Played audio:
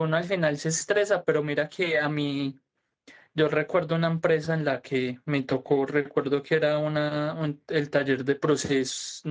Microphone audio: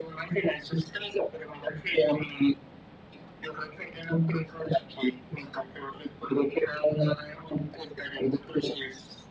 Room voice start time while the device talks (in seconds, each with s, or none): none